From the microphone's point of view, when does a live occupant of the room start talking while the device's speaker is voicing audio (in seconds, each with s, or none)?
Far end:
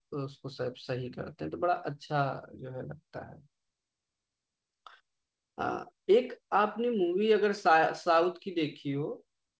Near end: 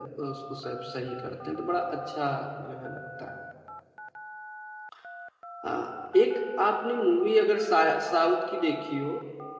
none